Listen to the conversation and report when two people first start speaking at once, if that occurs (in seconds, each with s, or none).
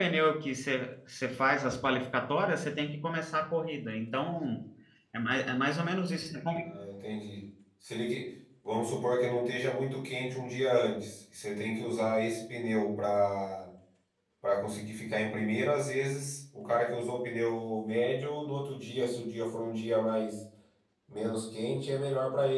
none